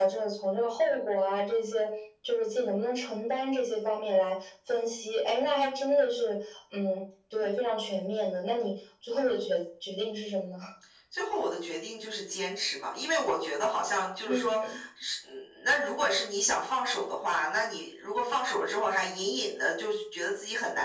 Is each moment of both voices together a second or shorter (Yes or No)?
Yes